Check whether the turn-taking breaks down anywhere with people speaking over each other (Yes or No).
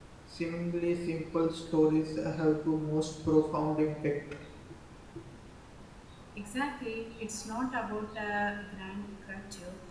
No